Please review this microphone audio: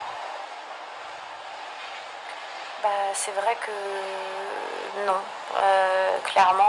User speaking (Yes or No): No